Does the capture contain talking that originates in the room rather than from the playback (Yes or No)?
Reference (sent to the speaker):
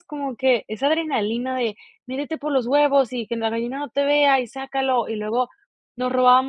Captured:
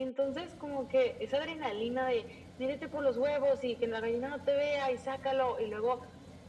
No